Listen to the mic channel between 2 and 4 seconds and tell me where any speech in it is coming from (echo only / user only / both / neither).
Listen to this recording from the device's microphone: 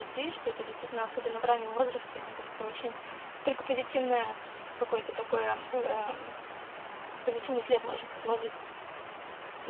user only